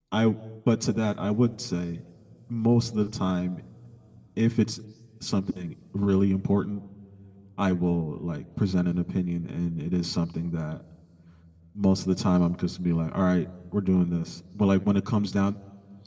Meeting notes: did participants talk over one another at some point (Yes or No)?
No